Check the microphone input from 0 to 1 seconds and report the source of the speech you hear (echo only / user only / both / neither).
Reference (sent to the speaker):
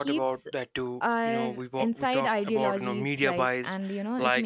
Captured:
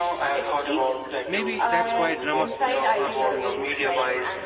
echo only